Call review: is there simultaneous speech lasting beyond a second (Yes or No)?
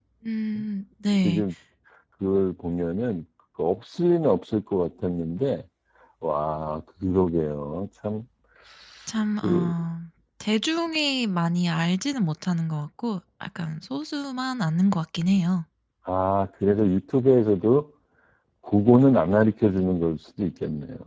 No